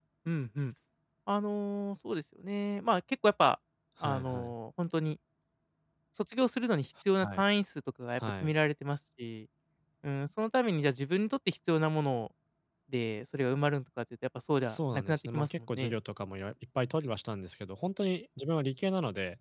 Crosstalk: present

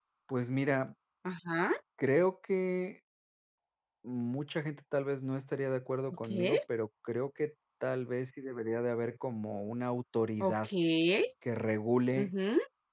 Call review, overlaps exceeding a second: none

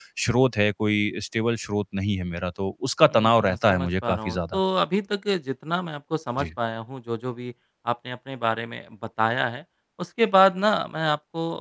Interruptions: present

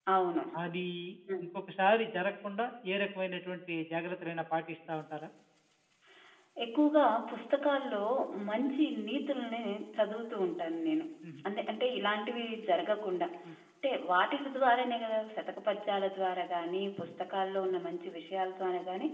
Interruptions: none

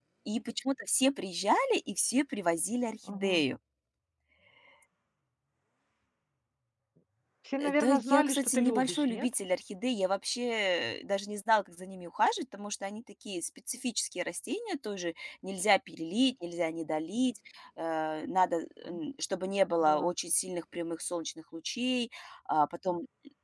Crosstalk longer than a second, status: present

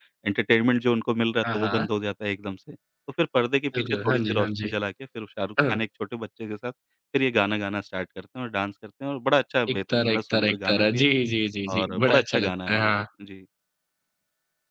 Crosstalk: present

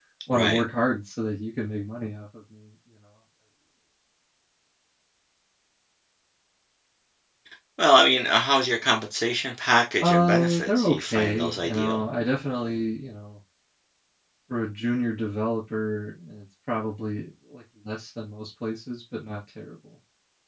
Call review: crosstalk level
present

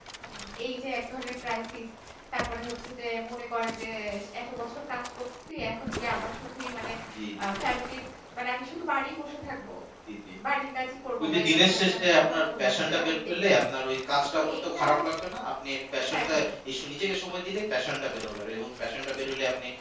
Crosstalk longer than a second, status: present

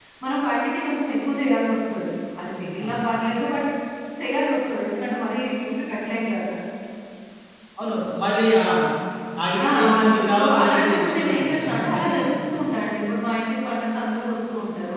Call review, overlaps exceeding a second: present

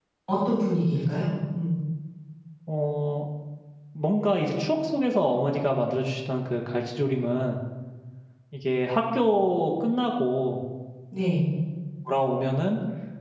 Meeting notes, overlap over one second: none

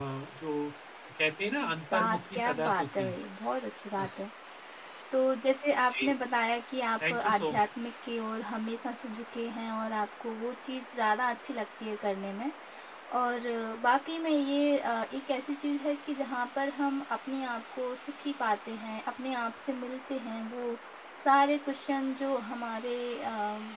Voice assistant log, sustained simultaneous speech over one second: present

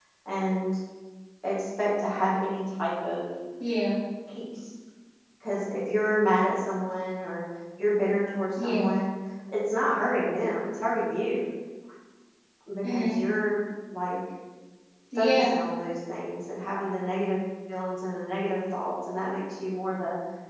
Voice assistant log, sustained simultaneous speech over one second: none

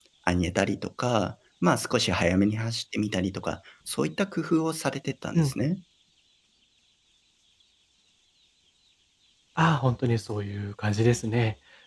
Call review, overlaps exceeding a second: none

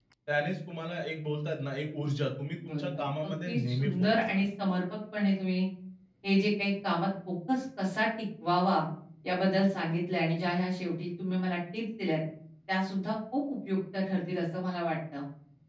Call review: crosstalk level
present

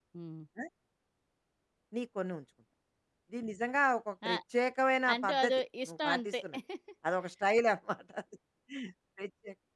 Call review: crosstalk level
present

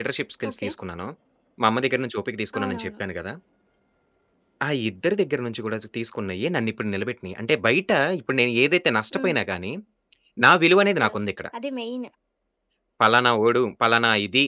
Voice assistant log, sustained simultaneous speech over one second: none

